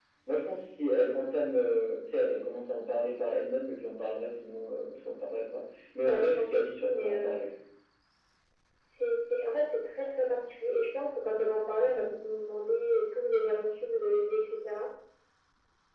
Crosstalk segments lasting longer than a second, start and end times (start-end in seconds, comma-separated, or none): 6.0-7.4